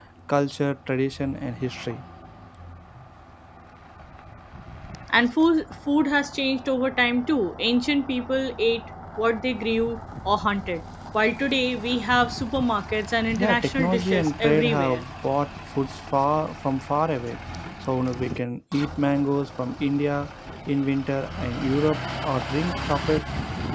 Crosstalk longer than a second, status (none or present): present